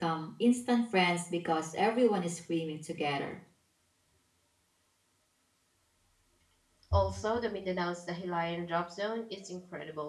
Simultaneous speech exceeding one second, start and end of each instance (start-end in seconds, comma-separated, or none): none